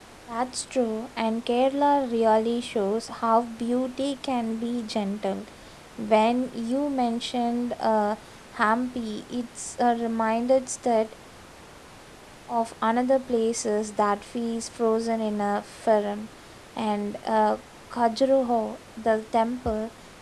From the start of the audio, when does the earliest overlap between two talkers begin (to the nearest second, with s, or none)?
none